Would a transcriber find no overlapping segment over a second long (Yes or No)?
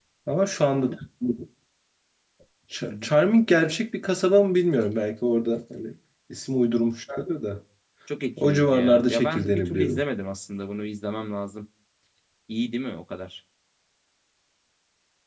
No